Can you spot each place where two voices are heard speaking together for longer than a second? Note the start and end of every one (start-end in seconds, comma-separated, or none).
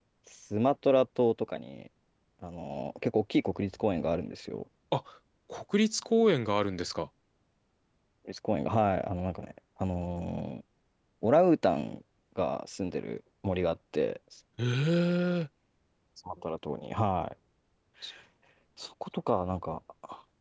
none